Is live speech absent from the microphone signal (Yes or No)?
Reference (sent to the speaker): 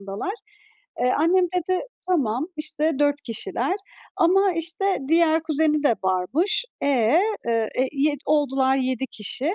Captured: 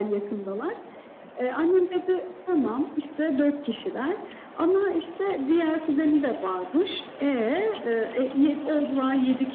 Yes